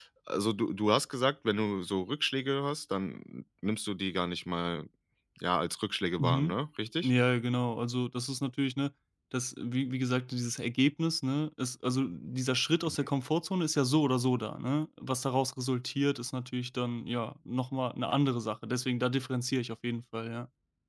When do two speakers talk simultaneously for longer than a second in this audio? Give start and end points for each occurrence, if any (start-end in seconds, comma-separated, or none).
none